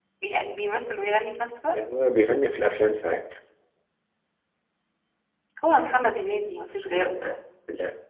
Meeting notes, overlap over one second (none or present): none